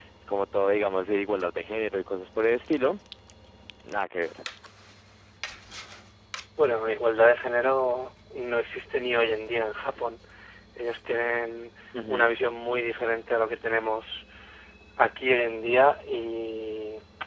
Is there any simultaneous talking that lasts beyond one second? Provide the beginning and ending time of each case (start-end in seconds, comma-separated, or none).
none